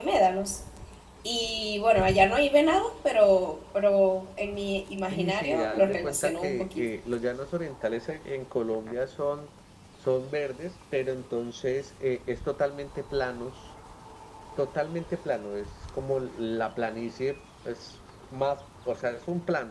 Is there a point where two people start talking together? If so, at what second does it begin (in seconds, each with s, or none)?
5.1 s